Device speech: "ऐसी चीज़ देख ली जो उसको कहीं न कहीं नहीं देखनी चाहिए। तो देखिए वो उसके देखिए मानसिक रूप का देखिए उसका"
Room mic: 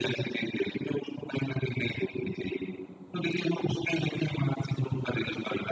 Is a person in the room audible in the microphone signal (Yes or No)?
No